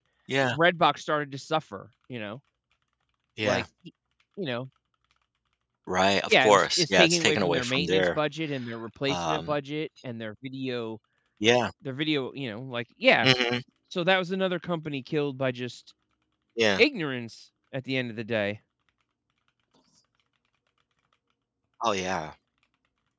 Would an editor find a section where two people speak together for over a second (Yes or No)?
Yes